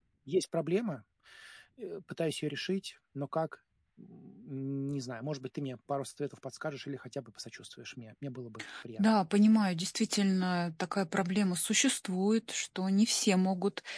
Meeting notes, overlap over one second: none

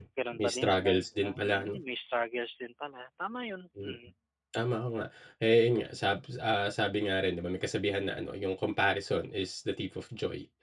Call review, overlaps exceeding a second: present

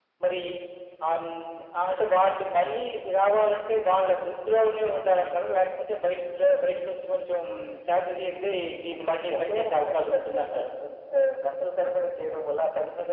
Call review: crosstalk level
present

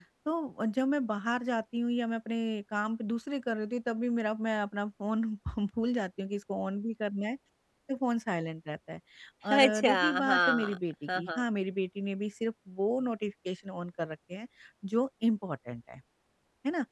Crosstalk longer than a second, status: present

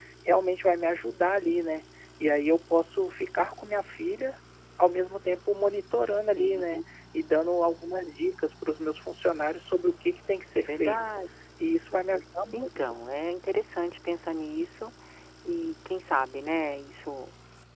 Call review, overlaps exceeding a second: none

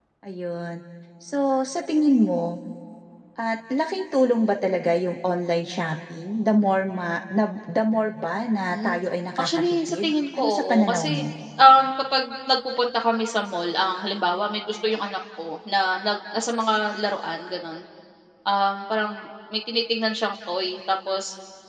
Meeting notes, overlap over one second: present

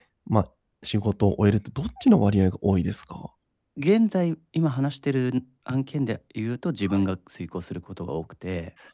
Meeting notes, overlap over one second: none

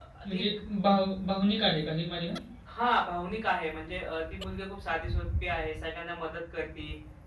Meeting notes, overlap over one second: none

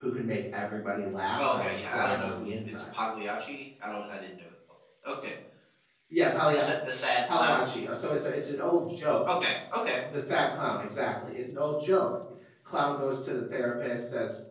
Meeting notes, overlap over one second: present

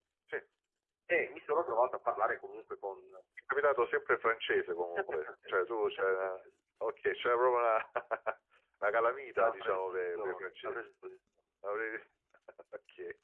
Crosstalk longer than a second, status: present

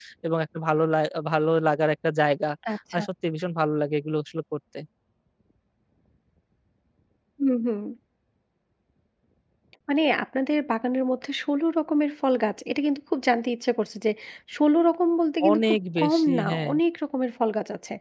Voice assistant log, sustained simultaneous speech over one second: present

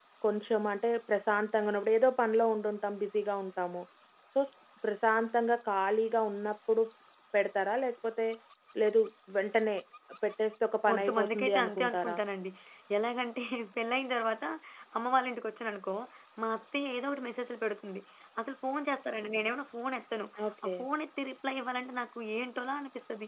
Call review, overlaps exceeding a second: present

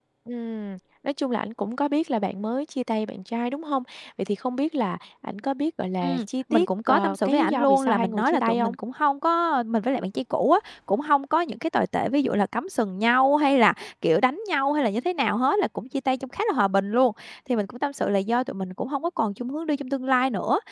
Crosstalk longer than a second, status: present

